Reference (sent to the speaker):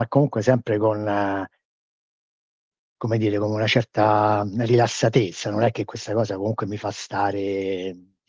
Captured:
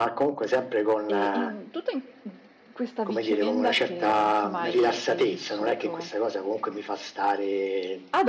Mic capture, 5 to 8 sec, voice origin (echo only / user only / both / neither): both